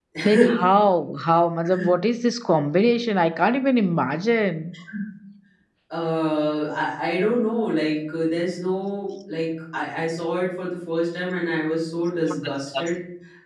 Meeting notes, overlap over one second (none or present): none